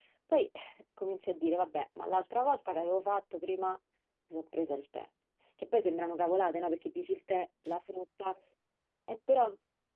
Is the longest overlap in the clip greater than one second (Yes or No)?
No